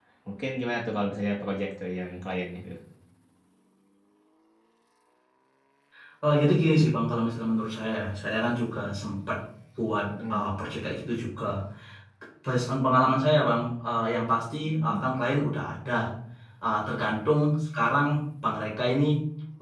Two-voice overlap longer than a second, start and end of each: none

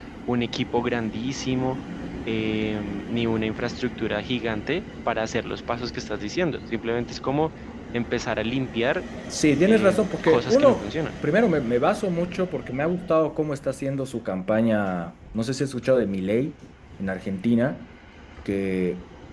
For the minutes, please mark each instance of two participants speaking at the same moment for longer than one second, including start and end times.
9.7-10.9

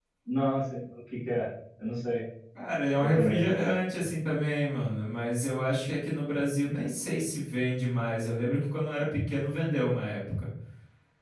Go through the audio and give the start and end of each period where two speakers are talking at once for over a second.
none

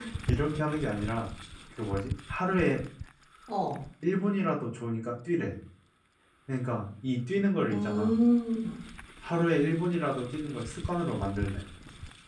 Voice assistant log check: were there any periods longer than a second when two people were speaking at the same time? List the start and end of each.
none

